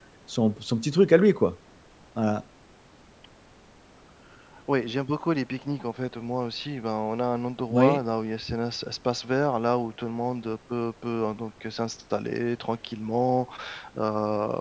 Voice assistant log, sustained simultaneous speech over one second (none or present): none